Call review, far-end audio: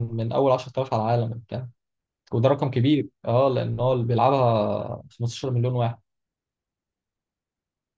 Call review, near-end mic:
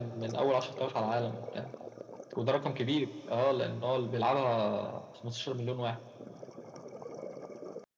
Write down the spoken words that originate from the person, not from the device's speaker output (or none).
none